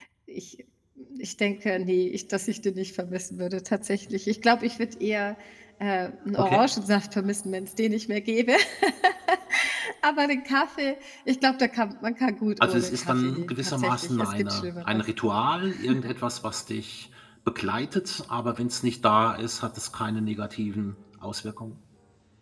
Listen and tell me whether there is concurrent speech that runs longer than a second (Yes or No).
Yes